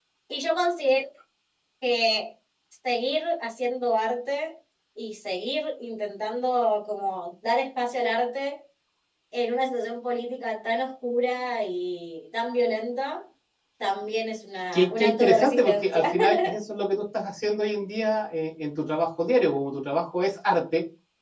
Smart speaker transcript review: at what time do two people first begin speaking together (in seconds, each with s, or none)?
14.7 s